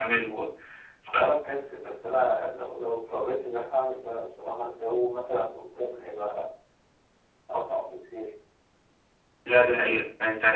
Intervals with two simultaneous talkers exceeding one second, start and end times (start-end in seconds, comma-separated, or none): none